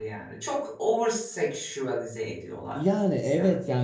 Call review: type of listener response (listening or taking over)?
taking over